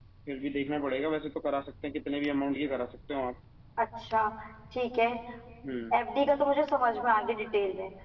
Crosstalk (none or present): none